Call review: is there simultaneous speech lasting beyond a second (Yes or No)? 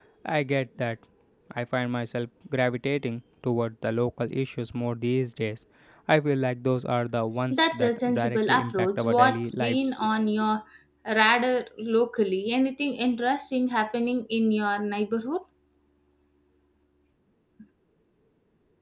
Yes